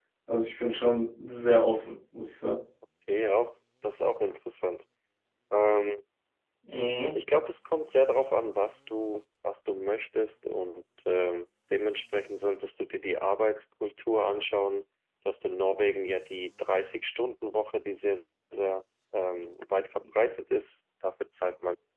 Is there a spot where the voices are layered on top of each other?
No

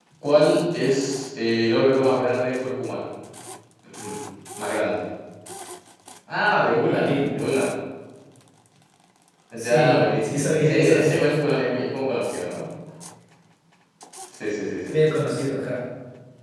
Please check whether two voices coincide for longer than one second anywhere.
Yes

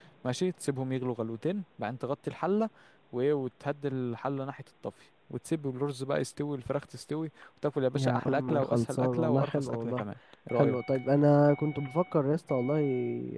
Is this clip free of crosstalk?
No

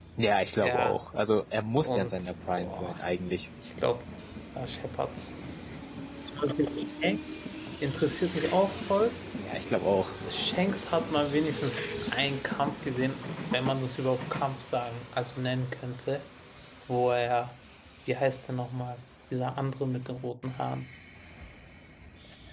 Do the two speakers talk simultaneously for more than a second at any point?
Yes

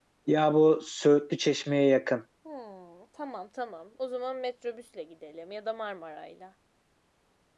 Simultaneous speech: No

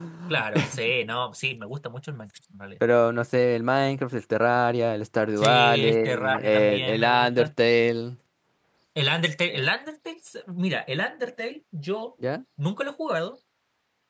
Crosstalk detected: Yes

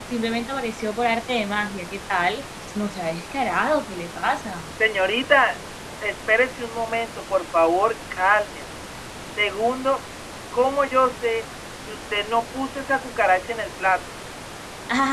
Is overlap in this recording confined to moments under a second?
Yes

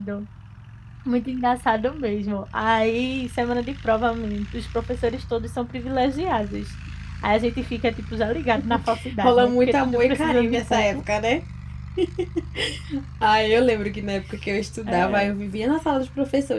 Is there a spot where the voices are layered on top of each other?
Yes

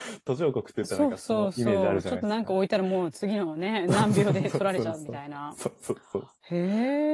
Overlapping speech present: Yes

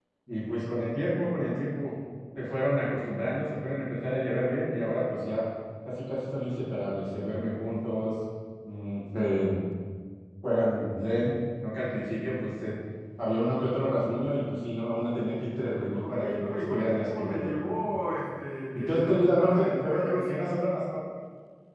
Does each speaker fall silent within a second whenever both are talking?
No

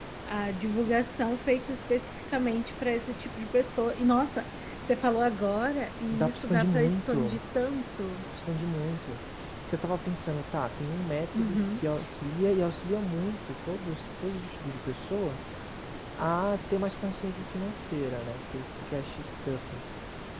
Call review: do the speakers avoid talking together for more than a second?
No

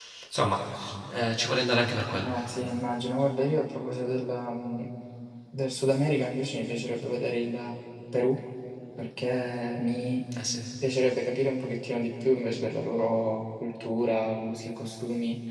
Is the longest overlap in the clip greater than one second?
No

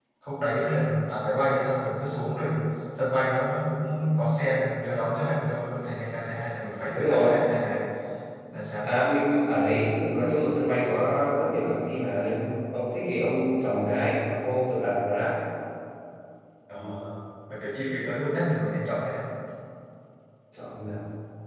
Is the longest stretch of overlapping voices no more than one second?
Yes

